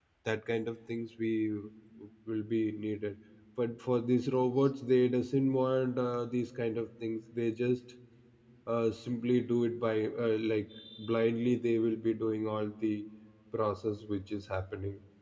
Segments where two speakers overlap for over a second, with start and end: none

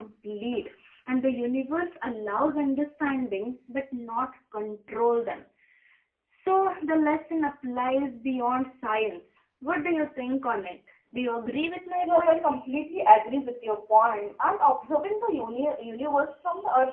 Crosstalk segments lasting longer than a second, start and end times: none

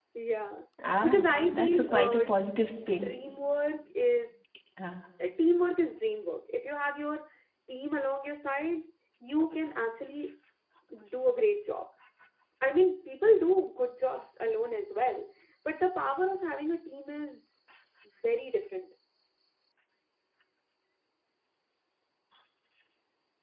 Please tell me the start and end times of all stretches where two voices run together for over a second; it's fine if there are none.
1.0-2.2

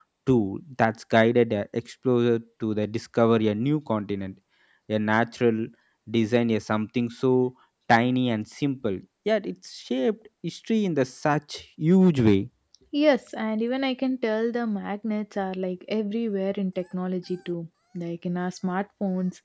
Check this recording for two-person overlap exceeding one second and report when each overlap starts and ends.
none

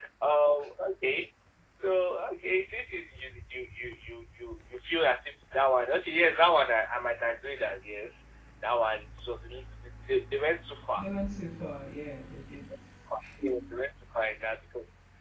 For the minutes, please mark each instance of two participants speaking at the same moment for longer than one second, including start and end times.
none

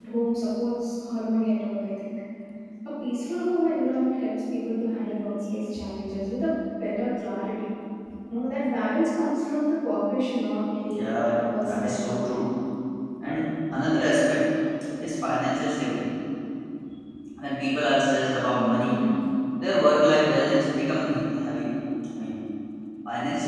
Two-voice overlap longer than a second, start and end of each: 10.9-12.4

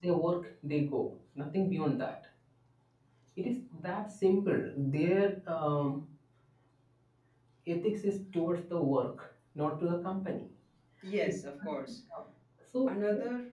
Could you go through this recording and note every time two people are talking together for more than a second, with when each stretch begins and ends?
none

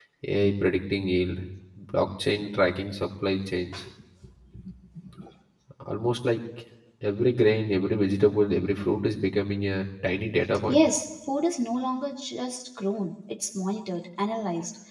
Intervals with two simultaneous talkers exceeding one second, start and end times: none

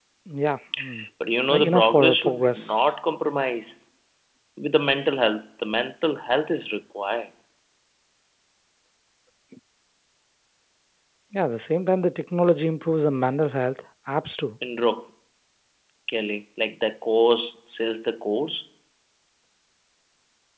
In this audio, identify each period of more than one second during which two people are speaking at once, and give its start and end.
1.5-2.9

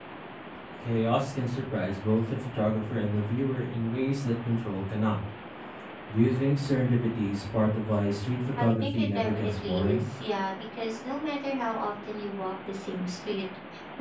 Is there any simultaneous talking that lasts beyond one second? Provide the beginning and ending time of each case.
8.6-10.0

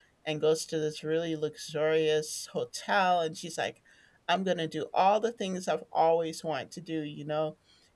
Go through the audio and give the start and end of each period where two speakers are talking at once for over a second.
none

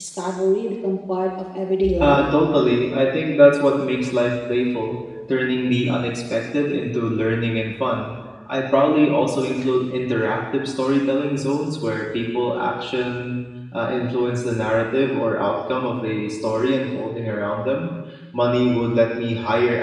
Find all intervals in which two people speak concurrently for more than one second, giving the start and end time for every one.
none

